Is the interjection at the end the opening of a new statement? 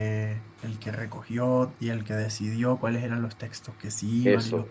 Yes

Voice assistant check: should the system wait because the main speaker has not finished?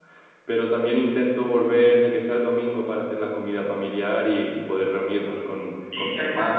Yes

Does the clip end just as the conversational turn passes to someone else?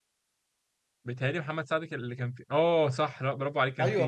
Yes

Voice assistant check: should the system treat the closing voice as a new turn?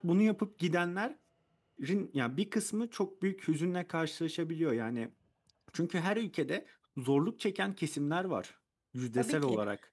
Yes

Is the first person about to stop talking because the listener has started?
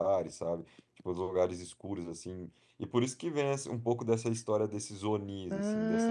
No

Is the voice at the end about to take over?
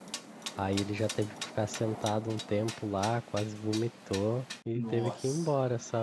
No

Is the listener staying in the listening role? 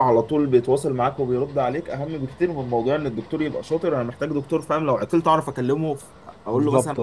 No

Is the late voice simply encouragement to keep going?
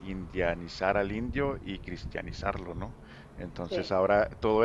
Yes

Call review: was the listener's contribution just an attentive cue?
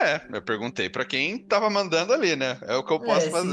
No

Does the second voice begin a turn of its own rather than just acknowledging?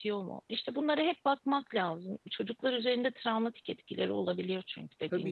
Yes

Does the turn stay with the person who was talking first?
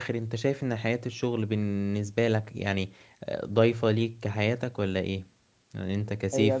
No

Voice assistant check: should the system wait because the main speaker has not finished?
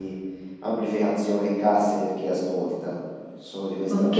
No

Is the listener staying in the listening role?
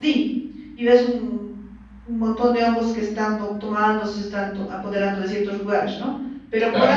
Yes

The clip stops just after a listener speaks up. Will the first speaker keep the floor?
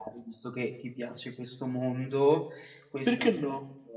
Yes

